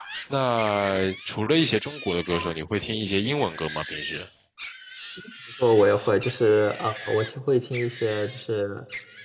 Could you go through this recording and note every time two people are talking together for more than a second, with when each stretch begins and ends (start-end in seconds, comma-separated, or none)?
none